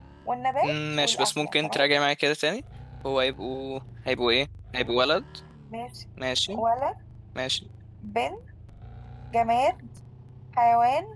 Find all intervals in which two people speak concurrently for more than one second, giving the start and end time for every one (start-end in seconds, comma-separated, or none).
0.6-1.8